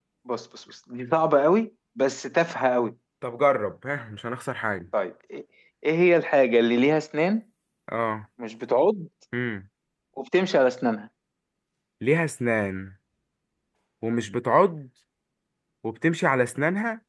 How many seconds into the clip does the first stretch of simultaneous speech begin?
none

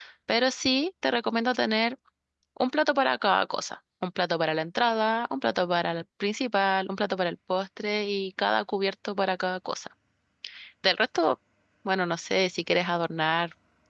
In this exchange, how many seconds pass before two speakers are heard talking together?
none

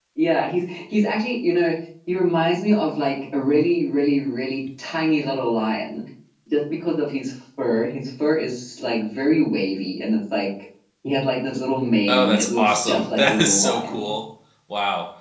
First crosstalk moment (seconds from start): 12 s

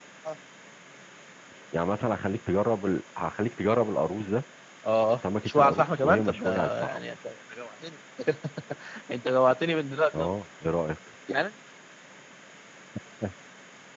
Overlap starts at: 5 s

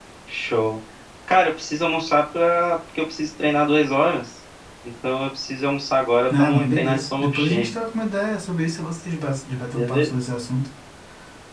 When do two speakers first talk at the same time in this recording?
6 s

